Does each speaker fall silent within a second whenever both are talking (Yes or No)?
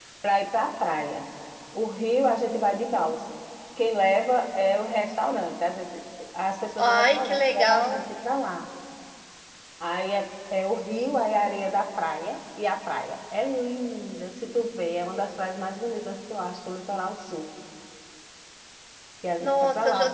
No